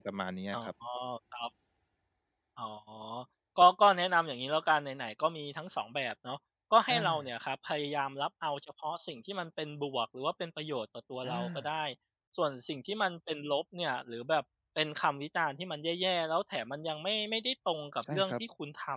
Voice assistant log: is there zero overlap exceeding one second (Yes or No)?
Yes